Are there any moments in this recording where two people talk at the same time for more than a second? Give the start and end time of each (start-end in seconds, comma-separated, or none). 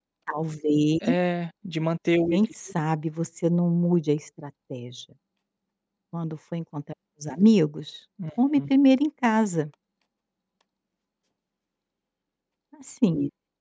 none